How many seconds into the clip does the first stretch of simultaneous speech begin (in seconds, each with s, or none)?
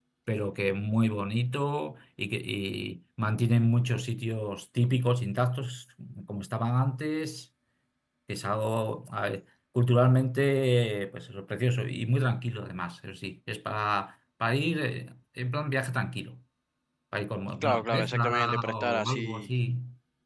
17.6 s